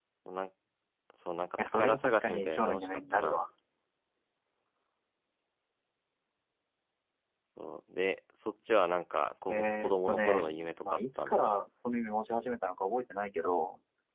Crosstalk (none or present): present